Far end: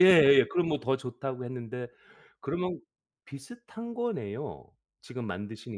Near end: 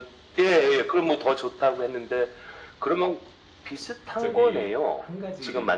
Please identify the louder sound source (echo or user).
echo